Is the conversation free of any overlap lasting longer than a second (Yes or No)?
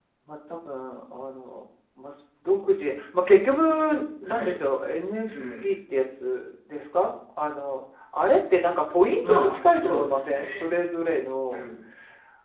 No